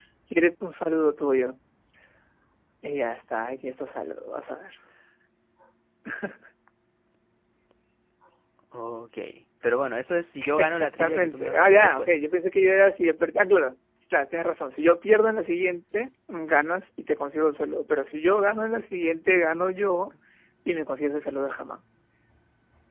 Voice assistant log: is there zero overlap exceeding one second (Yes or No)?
No